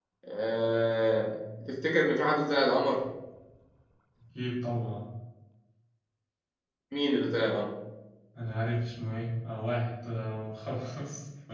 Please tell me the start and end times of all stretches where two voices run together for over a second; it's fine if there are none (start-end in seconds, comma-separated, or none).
none